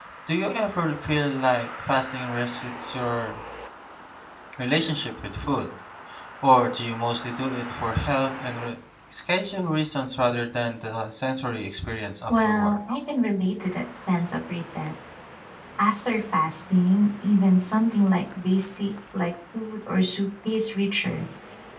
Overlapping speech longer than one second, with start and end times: none

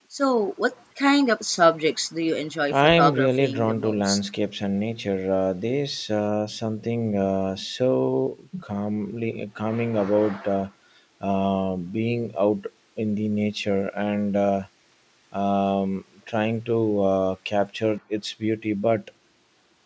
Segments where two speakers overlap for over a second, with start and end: 3.0-4.2

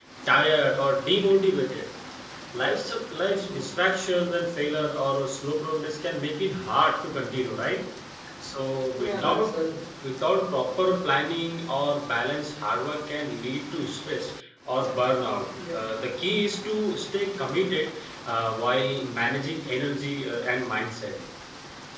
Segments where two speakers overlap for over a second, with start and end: none

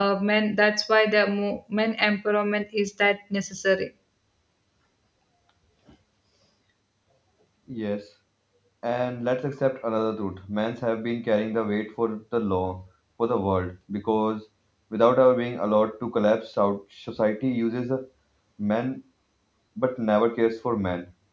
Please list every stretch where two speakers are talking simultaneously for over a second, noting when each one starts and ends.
none

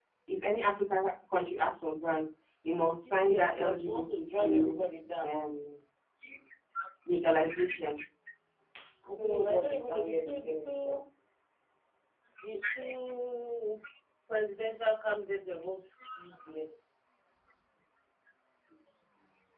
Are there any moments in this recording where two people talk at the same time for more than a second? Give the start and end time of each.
3.0-4.8, 9.2-11.0

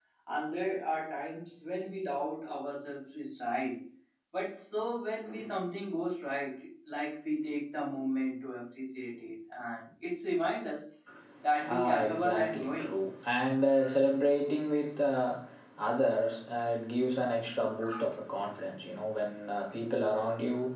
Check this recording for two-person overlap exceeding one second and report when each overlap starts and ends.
11.7-12.9

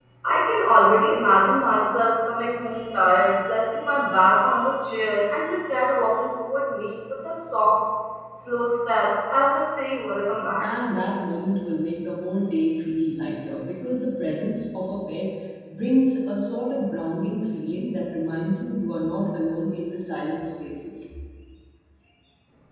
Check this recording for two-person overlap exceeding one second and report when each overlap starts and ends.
none

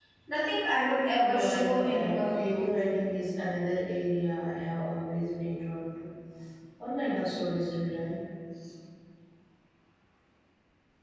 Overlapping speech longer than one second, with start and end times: 1.2-2.8

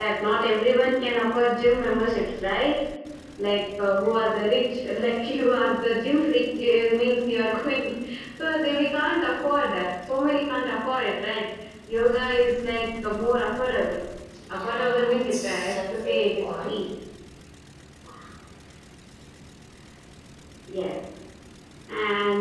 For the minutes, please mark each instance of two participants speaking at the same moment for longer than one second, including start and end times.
14.5-16.8

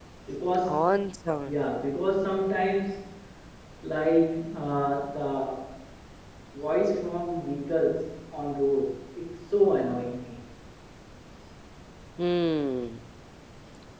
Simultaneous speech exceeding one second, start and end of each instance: none

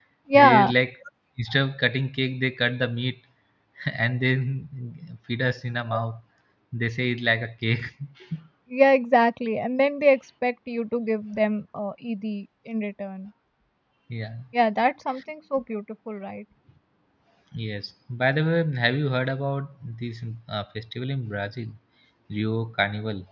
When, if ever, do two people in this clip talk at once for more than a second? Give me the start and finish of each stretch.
none

